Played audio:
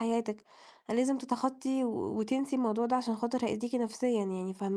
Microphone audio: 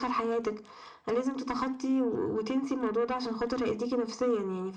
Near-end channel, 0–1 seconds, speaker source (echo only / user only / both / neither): echo only